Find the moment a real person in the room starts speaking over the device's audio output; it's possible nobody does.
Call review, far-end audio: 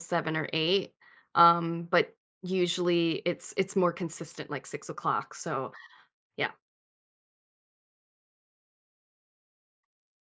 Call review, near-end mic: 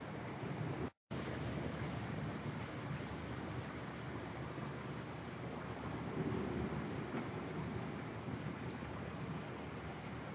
none

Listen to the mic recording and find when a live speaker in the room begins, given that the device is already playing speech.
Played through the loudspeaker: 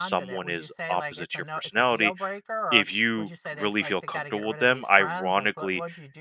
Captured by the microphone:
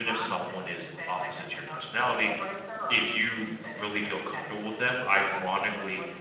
none

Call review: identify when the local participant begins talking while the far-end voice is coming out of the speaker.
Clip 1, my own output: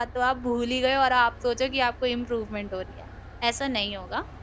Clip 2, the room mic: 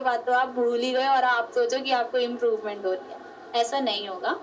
none

